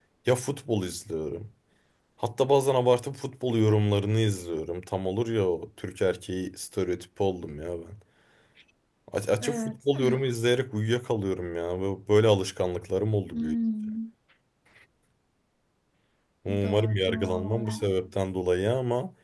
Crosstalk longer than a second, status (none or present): present